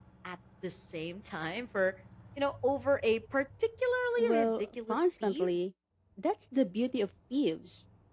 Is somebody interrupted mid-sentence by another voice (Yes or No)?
Yes